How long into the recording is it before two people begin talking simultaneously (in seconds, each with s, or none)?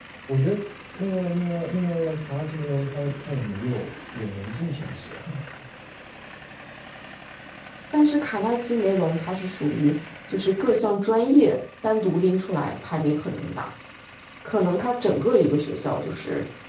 none